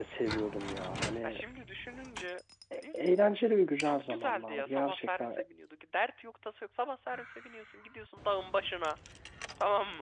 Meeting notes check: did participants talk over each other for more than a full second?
Yes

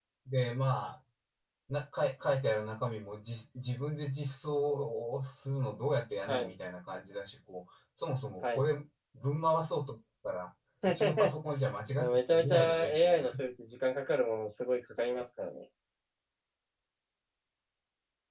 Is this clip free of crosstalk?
No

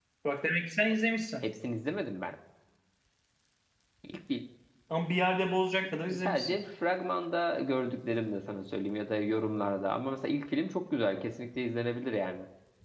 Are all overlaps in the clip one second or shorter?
Yes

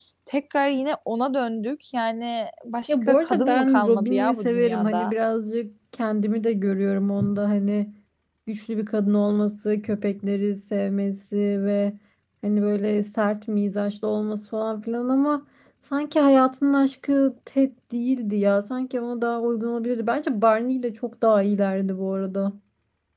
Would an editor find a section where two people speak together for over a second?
Yes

